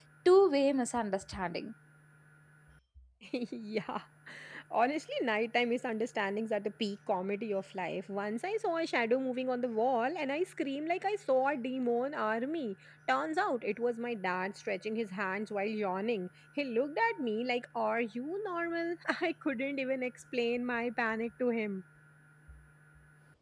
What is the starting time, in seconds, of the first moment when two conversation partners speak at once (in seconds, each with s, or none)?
none